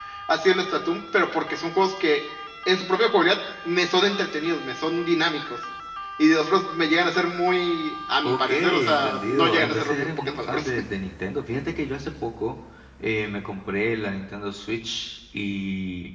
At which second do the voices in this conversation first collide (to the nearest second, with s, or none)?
8 s